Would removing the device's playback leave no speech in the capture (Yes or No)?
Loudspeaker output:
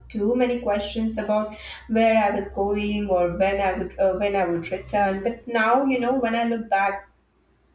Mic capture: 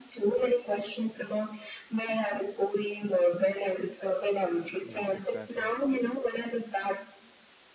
No